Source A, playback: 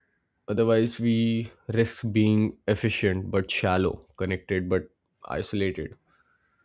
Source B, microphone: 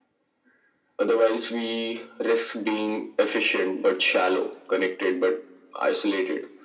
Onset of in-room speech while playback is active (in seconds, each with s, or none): none